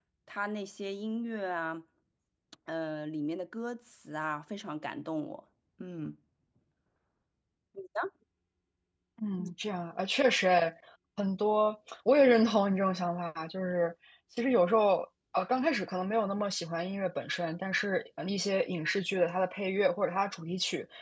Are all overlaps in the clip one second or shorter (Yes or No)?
Yes